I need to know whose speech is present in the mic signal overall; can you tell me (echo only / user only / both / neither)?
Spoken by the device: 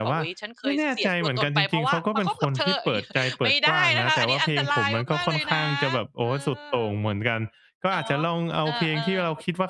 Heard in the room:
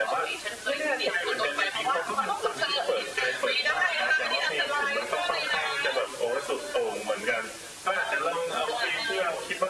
echo only